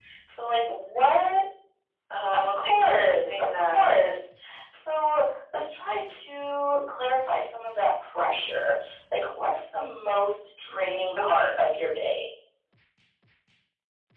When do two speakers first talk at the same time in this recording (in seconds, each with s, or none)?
2.3 s